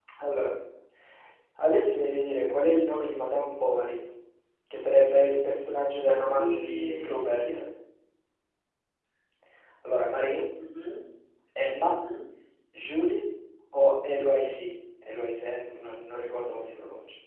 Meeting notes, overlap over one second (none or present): present